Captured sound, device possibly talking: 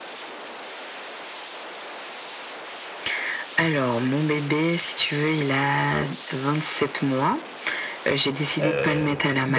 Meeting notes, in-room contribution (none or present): present